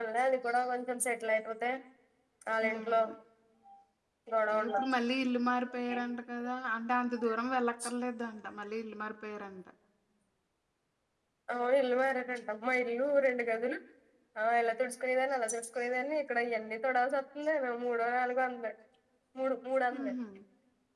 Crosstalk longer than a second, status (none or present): none